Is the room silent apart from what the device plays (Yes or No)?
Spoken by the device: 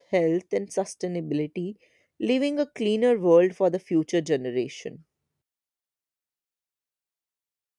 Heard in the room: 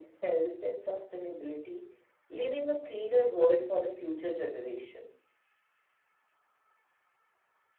Yes